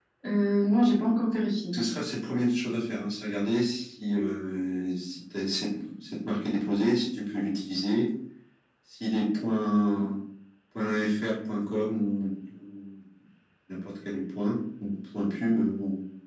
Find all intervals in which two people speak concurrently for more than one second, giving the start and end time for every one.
none

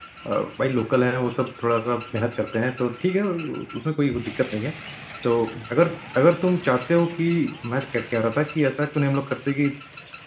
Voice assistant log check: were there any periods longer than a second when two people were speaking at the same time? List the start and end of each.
none

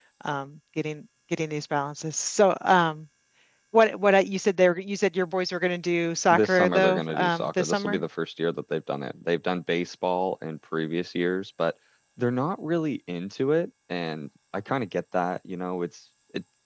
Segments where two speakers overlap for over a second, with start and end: 6.3-8.0

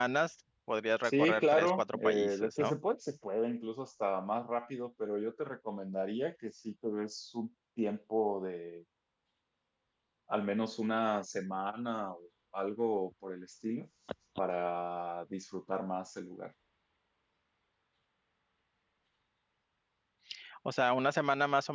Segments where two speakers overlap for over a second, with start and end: 1.0-2.8

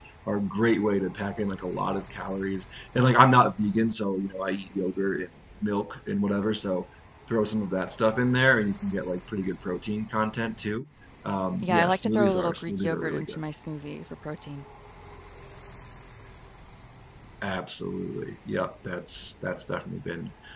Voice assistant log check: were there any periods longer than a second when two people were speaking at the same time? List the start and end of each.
11.6-13.4

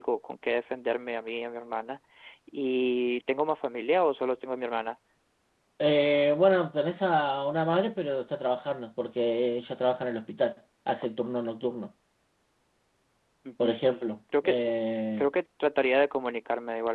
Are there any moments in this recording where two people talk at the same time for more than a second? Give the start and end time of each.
none

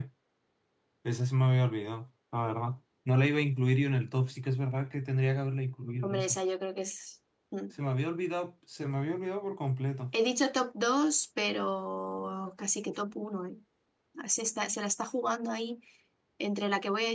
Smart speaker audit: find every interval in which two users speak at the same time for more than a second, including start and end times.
none

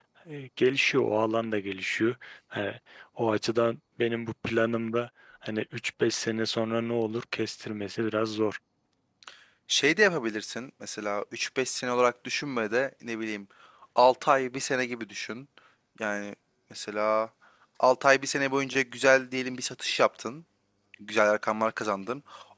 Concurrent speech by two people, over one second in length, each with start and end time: none

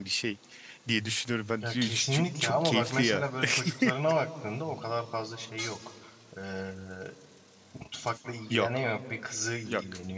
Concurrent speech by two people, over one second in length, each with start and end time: 1.6-3.2

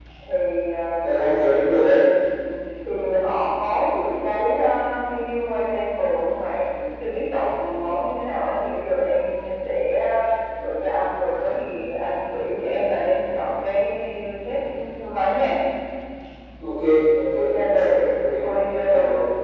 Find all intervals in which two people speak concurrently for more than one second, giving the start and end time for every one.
17.4-18.9

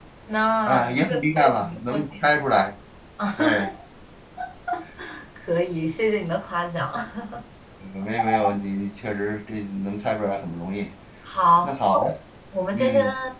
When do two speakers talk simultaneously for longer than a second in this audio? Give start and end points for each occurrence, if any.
0.7-2.4

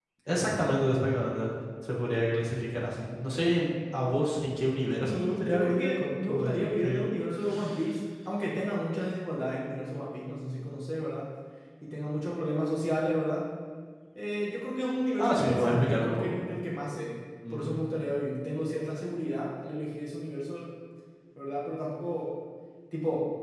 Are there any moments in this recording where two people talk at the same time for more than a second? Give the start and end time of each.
5.0-7.1, 15.2-16.5

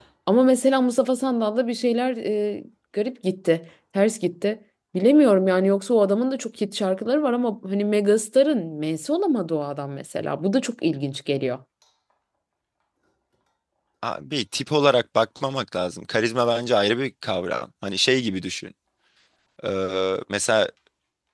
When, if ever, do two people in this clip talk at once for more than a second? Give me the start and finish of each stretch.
none

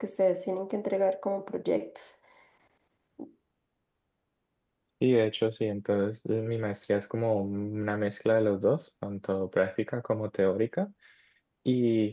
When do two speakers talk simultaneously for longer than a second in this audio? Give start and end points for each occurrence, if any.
none

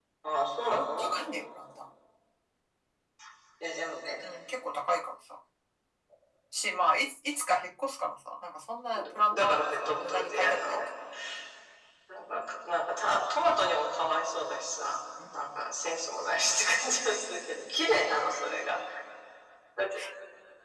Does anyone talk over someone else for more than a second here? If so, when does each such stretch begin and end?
9.3-10.8

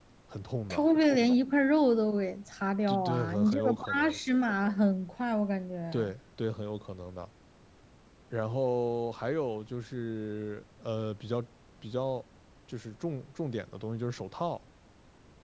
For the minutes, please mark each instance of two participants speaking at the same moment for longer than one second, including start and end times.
2.9-4.2

